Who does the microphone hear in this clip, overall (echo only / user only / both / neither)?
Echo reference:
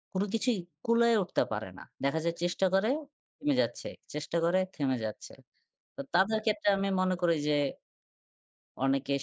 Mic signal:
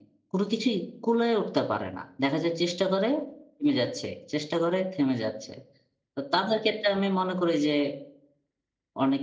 echo only